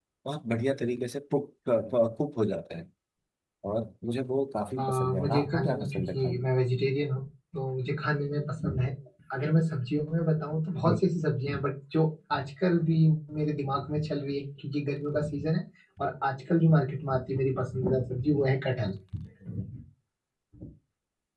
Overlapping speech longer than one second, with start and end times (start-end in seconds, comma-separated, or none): 4.8-6.5